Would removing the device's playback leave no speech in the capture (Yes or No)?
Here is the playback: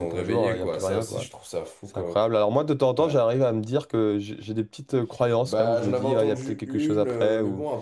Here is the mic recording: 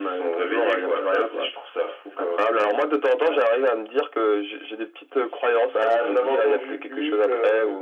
Yes